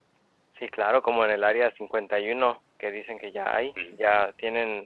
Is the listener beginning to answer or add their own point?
No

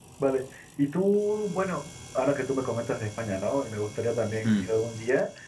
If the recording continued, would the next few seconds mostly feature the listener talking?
No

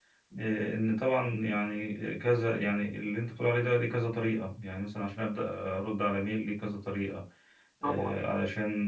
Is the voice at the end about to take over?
No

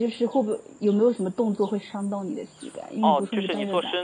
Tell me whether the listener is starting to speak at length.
Yes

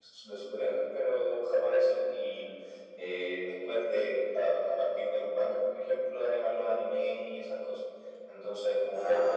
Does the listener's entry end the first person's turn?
No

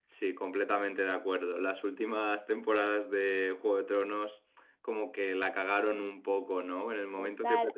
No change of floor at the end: No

